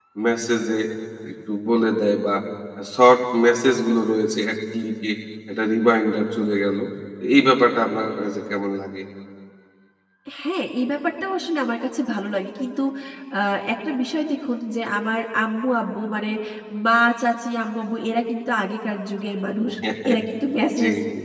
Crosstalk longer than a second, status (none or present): none